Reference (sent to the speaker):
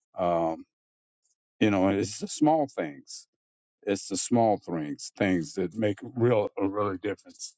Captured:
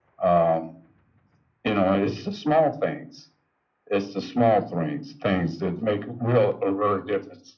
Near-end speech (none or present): none